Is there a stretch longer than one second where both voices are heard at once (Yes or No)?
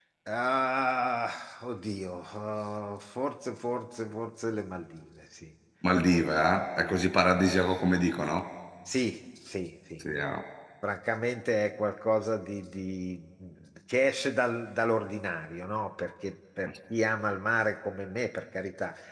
No